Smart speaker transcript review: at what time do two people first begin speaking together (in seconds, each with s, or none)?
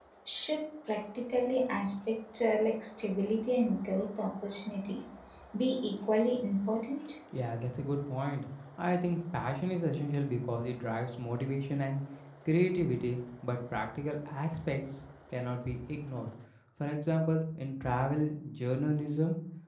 none